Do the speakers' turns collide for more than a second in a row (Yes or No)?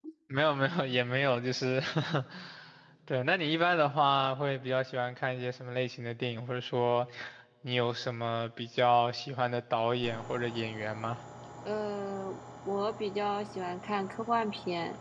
No